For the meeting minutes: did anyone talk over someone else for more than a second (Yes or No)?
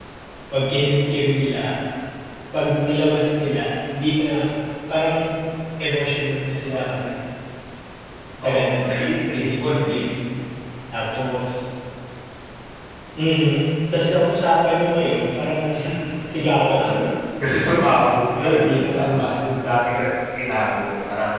Yes